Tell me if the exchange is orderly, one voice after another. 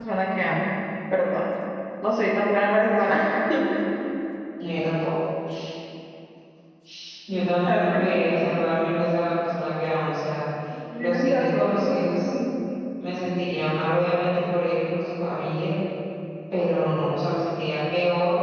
No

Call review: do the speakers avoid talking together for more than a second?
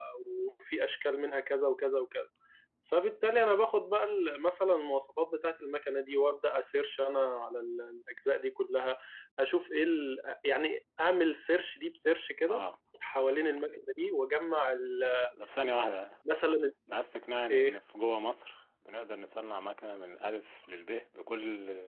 Yes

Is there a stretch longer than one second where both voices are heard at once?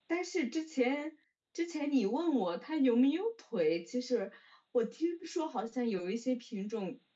No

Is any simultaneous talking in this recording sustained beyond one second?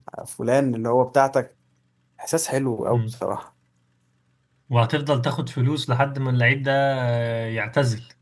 No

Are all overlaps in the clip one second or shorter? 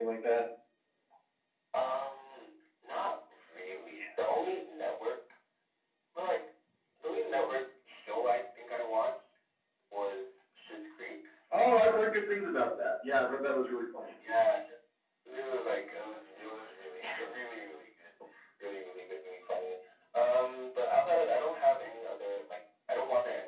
Yes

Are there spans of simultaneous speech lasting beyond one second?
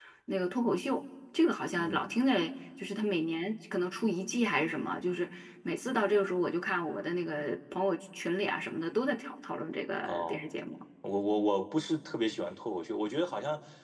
No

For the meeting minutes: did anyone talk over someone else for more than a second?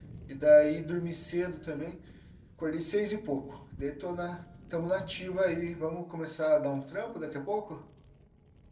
No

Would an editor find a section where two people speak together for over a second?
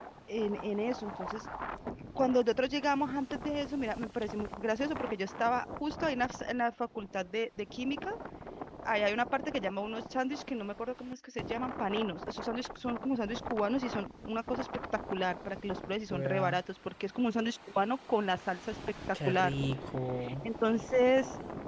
No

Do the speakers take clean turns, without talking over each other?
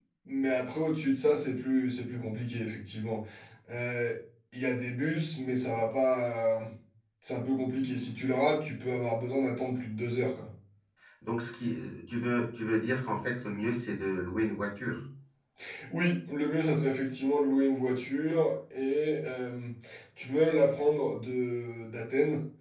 Yes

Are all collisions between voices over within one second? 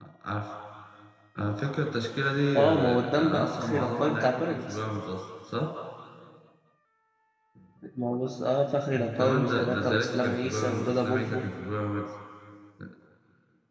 No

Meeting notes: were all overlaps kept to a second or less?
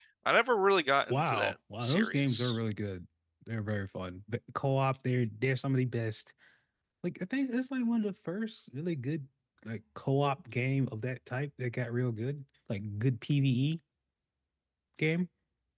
No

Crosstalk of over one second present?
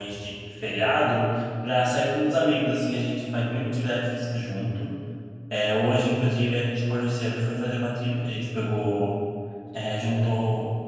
No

